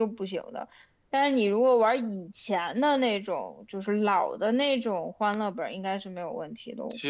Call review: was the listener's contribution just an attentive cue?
No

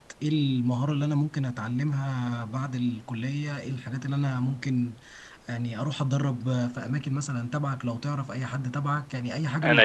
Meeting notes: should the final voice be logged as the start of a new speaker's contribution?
No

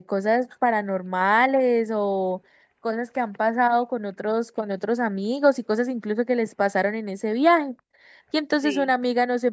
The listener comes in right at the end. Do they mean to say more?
No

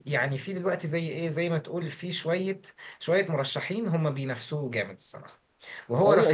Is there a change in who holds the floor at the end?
Yes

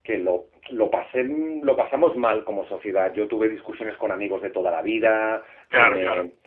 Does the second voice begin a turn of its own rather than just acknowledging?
No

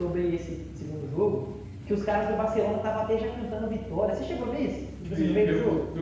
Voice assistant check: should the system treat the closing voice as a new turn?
Yes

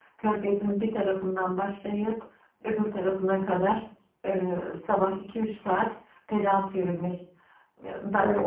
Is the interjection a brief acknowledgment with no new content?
No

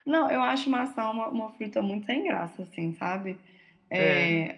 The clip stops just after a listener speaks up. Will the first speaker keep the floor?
Yes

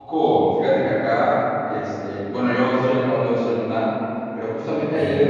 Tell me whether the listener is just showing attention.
Yes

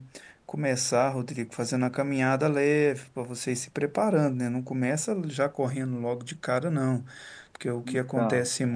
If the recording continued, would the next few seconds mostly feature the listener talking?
No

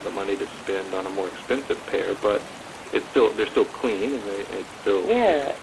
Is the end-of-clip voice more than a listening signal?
Yes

